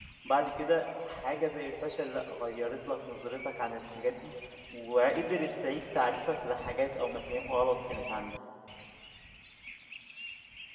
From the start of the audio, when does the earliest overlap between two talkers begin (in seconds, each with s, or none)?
none